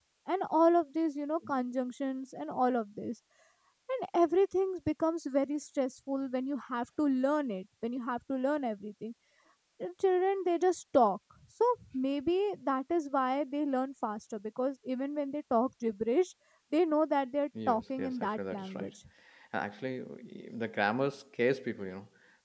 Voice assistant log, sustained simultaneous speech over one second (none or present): present